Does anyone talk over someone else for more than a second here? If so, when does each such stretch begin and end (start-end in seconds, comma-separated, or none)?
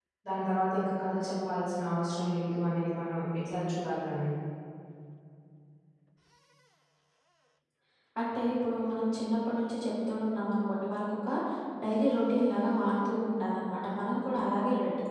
none